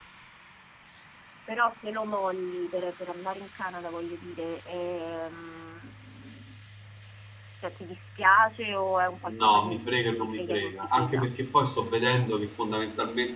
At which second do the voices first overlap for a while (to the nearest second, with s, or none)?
9 s